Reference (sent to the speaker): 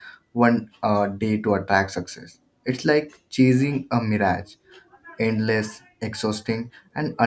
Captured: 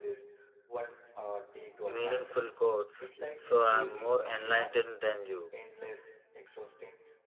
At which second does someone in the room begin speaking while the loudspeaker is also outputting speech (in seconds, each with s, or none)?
1.7 s